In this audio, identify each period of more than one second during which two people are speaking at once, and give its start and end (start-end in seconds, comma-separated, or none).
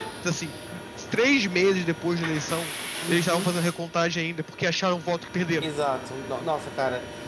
none